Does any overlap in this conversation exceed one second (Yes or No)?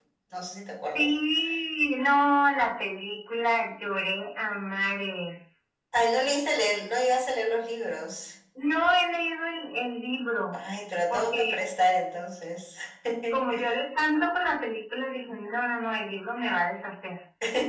No